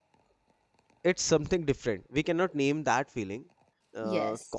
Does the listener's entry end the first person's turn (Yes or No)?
No